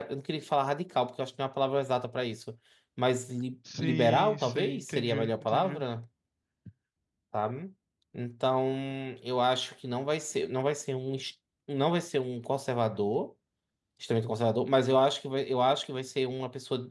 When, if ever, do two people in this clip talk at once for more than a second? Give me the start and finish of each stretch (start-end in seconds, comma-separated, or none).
3.8-5.8